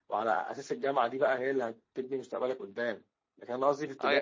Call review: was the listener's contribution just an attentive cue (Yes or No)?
Yes